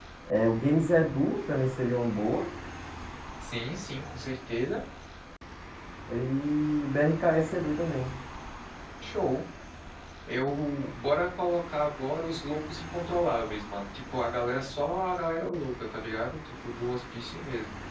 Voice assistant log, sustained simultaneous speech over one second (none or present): none